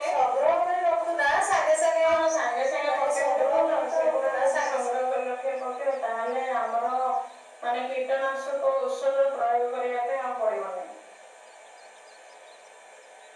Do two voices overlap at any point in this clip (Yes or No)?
Yes